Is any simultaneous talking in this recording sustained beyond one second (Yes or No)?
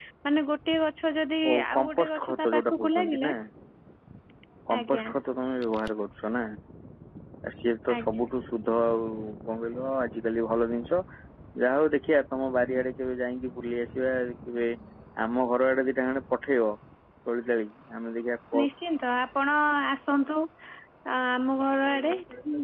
Yes